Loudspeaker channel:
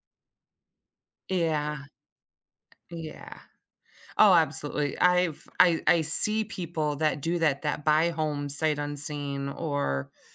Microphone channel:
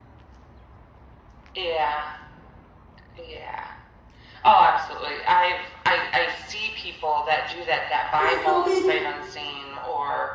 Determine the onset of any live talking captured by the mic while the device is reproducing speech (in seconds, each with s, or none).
8.2 s